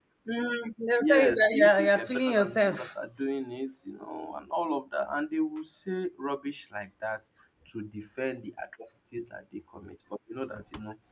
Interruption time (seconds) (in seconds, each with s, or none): 1.0 s